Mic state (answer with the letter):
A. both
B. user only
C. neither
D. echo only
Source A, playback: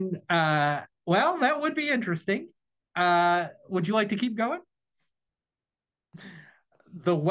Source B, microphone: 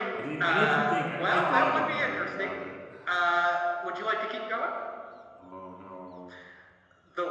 A